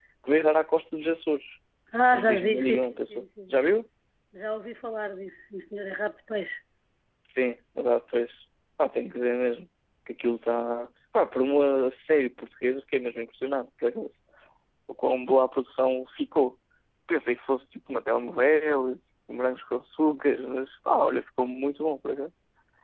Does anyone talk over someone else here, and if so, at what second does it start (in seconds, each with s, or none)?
2.1 s